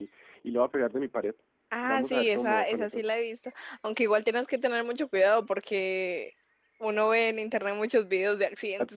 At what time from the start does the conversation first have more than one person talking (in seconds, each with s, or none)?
1.8 s